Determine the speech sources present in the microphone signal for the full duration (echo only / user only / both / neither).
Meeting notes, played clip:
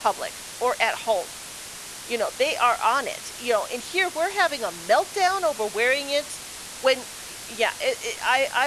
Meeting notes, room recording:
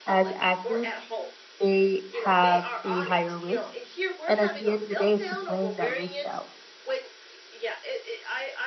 both